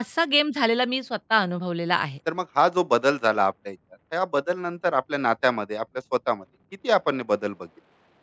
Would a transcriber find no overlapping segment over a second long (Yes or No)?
Yes